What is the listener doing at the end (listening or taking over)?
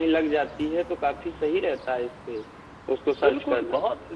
taking over